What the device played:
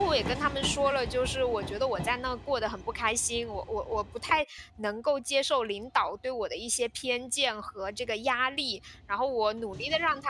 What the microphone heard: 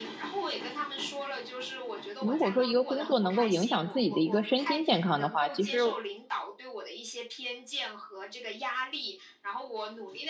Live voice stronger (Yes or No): Yes